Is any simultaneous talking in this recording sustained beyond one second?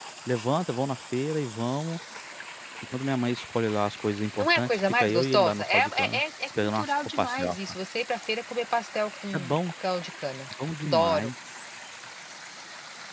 Yes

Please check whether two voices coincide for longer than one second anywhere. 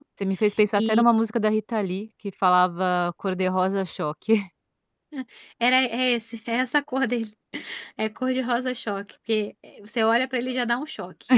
No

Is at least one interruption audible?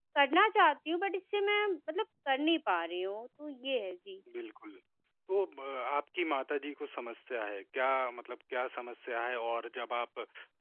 No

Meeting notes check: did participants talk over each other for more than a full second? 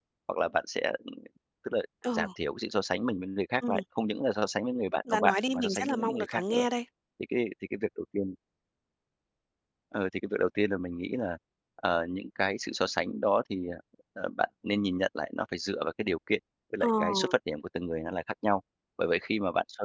Yes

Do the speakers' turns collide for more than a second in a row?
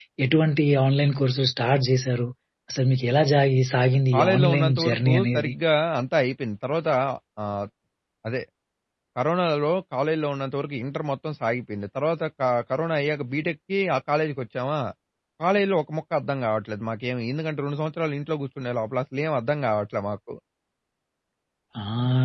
Yes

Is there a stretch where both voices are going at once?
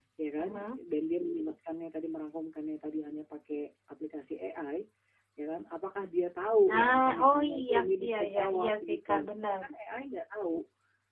Yes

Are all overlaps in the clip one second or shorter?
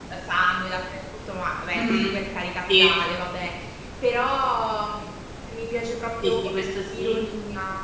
Yes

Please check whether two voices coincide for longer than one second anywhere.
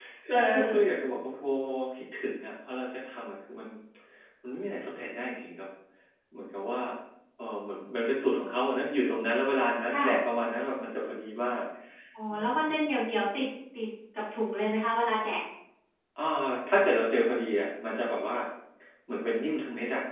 No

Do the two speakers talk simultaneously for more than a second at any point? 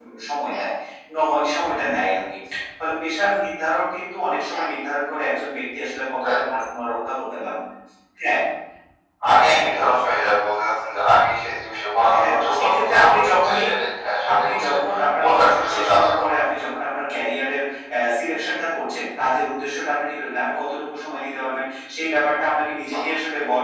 Yes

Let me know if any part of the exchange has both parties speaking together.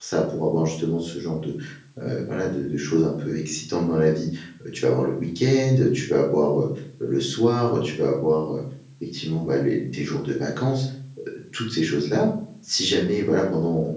No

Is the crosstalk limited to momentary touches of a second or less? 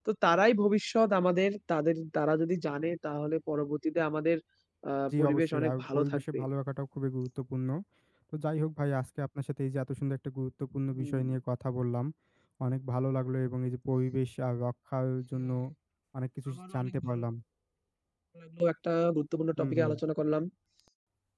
No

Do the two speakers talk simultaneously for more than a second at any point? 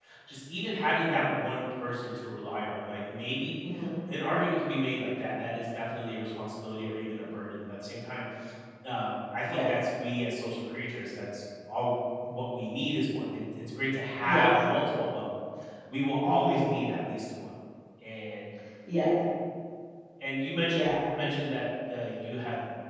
No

